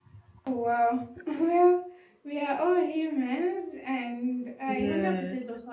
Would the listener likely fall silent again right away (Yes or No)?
Yes